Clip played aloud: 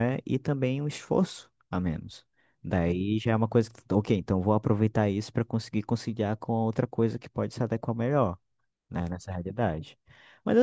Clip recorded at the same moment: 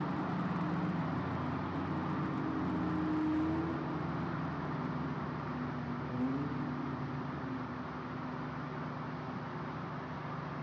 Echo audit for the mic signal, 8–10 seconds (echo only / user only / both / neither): neither